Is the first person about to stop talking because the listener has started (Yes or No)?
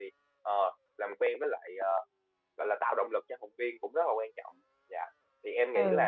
Yes